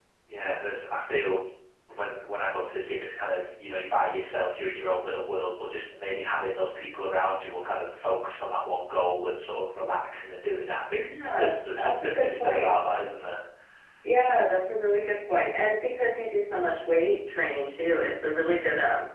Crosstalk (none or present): present